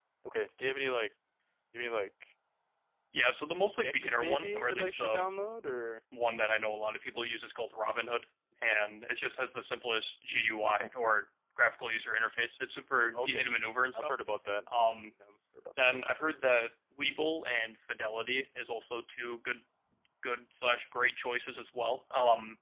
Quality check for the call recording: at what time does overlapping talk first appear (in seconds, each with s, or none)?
3.8 s